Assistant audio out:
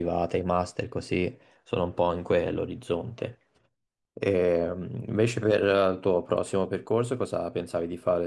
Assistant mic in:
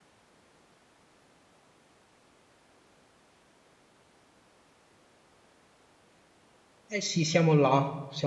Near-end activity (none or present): present